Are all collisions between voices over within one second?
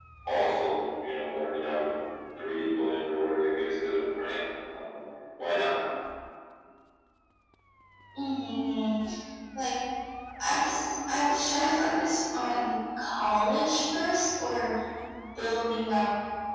Yes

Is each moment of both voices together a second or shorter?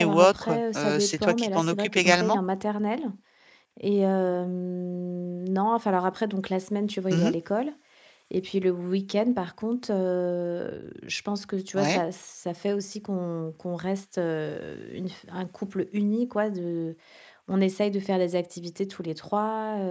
No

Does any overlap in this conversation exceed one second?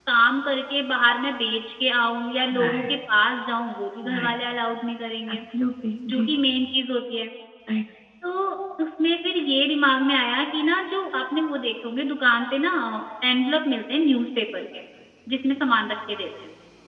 No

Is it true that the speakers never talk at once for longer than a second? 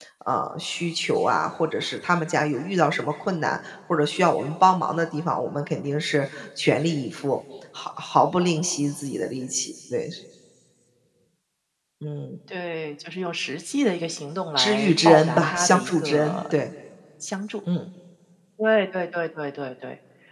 No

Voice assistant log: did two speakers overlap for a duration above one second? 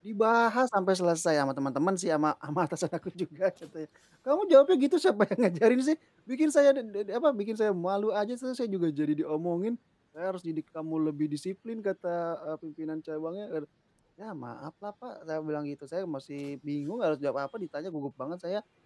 No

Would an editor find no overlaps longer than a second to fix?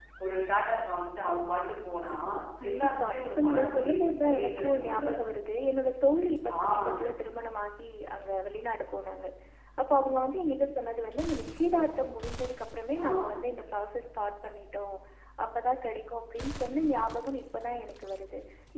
No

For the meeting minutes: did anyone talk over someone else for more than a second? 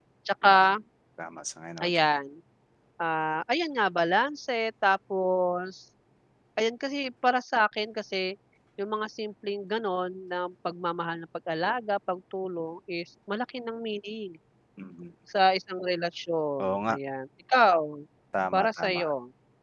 No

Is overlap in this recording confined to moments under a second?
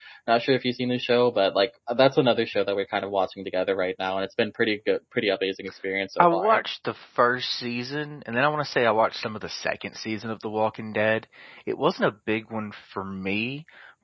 Yes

